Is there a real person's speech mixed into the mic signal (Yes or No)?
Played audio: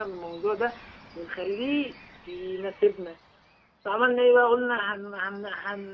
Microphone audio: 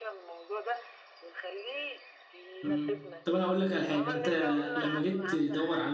Yes